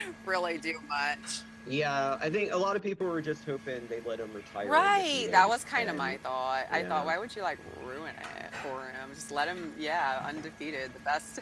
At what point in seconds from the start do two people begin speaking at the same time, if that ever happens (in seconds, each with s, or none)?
4.6 s